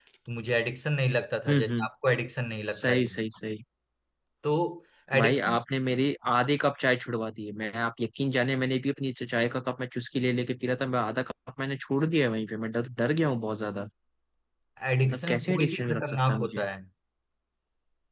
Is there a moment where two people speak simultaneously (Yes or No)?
Yes